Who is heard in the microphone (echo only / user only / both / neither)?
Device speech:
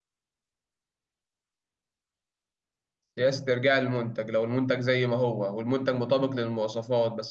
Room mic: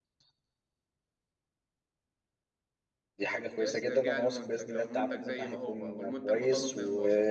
both